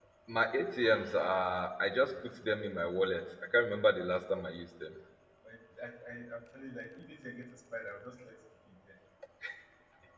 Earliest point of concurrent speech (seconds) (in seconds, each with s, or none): none